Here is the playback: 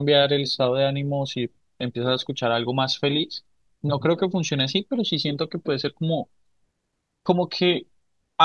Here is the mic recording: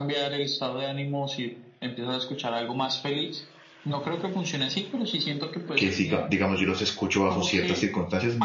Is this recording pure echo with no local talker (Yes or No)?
No